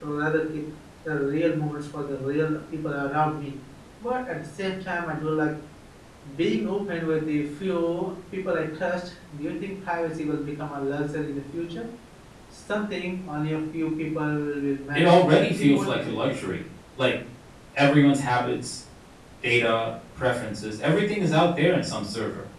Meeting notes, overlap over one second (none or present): present